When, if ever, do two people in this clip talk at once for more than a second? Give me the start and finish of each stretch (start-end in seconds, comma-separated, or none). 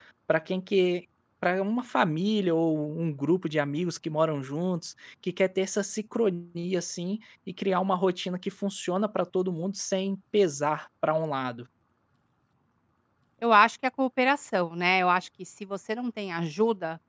none